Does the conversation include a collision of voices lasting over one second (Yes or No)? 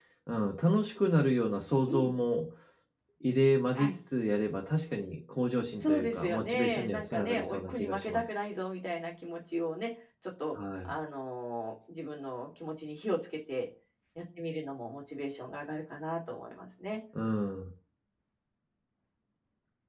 Yes